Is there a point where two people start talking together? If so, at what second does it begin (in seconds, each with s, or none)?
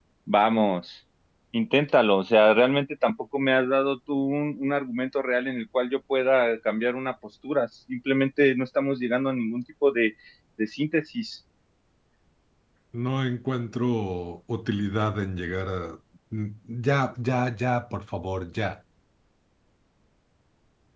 none